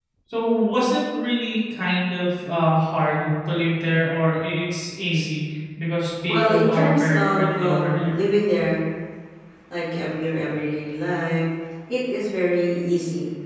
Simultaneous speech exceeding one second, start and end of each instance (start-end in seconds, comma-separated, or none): 6.3-8.2